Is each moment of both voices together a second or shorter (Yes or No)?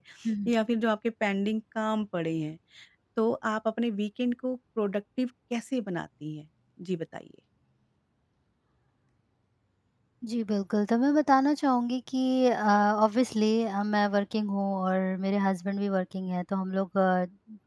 Yes